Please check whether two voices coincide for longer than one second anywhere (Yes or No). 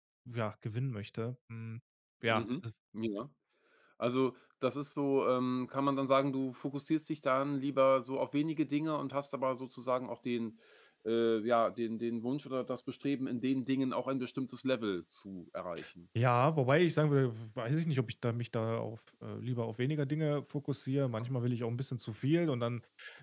No